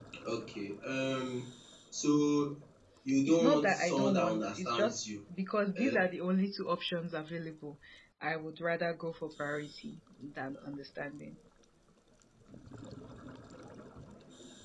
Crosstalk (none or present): present